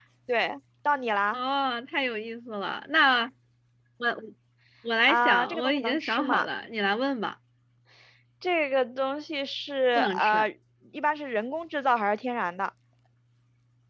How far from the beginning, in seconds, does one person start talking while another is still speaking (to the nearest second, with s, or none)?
5 s